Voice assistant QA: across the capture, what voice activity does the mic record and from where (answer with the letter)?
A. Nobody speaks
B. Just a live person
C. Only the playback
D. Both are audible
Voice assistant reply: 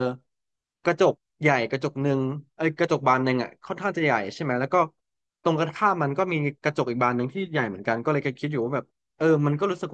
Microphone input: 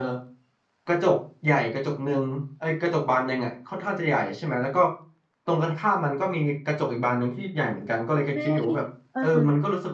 D